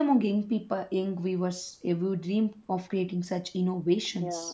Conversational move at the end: taking over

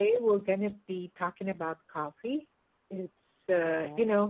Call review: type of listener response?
listening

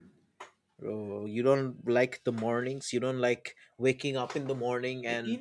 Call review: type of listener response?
taking over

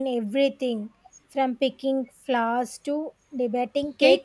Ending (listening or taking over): taking over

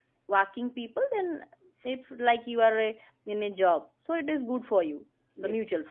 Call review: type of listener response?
taking over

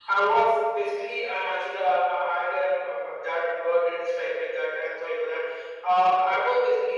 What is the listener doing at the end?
listening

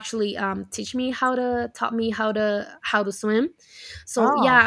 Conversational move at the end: listening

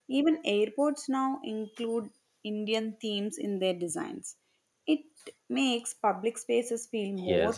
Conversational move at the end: taking over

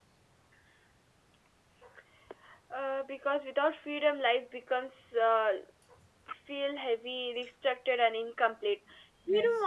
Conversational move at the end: listening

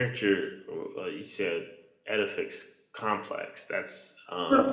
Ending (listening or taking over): taking over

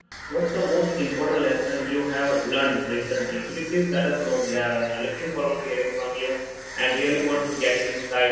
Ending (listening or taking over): listening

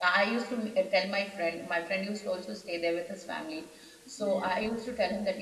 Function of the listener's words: listening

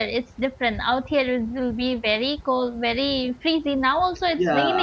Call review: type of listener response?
taking over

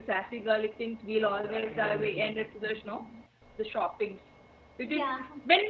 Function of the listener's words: listening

